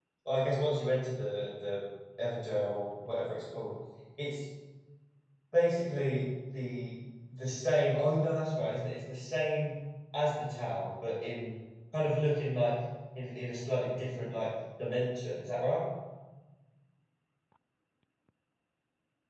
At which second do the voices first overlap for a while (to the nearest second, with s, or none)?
none